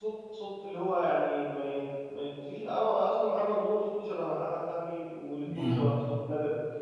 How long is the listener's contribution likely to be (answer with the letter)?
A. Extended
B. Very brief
B